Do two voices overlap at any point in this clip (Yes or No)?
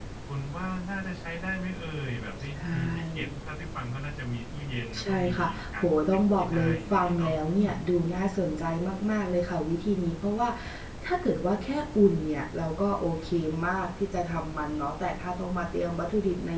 Yes